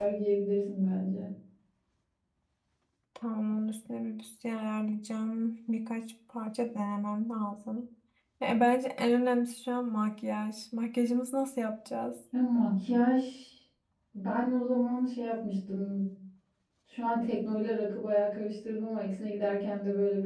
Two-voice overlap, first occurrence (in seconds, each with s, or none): none